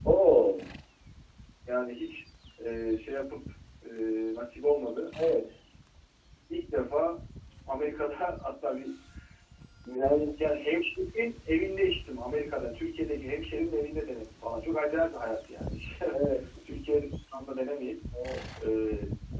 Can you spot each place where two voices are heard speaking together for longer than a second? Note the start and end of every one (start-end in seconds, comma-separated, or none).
none